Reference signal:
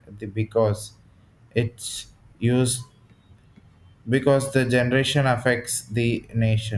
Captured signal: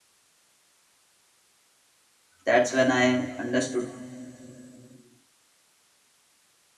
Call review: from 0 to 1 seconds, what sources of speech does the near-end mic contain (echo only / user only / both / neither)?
neither